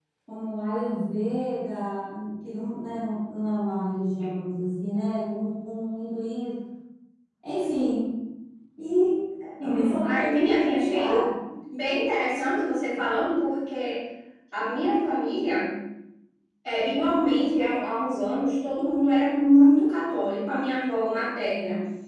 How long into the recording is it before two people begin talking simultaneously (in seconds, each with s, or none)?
9.6 s